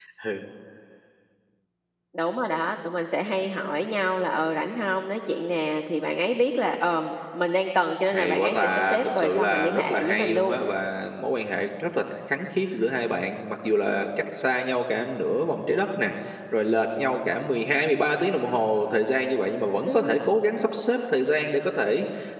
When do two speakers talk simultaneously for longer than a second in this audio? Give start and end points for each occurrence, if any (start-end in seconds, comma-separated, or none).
8.1-10.6